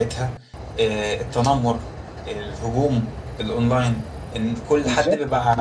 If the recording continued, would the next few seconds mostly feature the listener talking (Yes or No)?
No